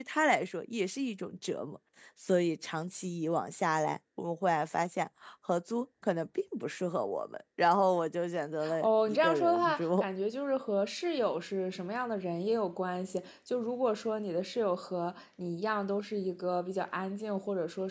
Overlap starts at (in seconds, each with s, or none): 8.6 s